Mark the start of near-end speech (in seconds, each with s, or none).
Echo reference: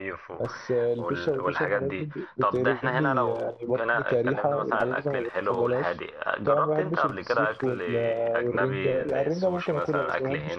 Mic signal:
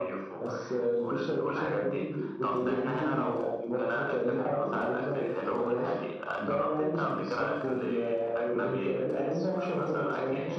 none